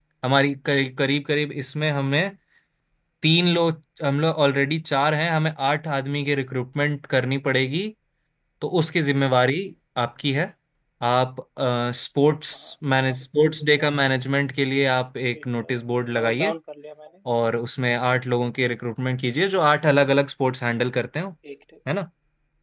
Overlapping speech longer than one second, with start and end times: none

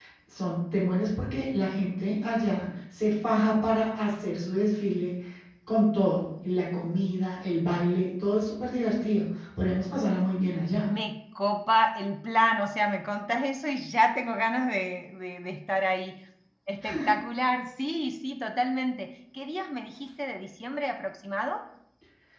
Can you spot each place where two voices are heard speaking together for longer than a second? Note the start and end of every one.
none

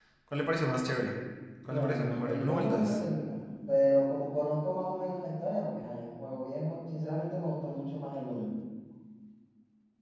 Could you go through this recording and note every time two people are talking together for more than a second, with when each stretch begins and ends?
1.7-3.0

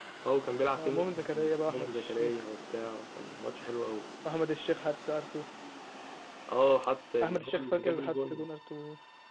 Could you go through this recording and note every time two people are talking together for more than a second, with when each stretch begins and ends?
0.8-2.4, 7.2-8.5

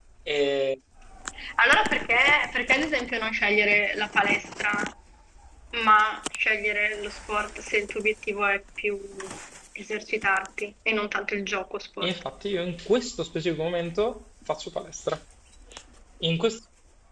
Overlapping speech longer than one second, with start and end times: none

